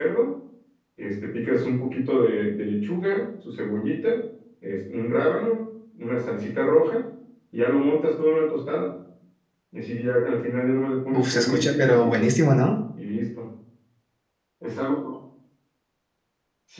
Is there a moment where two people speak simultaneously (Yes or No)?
Yes